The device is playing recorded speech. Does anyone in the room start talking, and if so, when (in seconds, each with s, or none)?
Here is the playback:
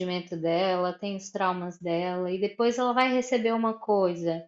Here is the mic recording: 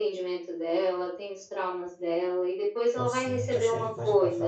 2.9 s